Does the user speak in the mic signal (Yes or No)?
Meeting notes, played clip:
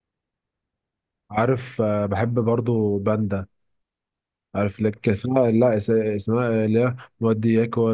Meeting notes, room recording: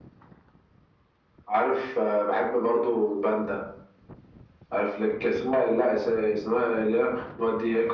No